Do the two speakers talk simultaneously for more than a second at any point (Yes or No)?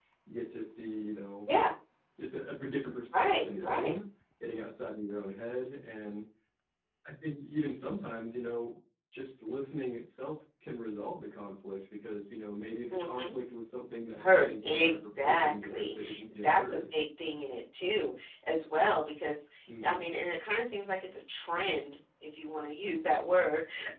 Yes